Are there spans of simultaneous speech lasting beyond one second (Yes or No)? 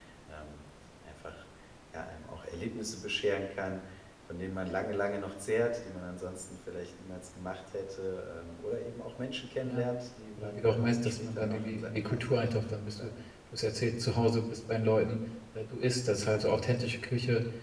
Yes